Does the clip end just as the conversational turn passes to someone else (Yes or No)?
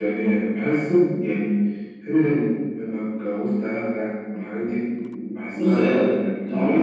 Yes